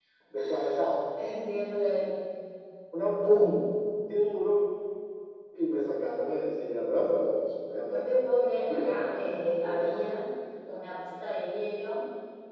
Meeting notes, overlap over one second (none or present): present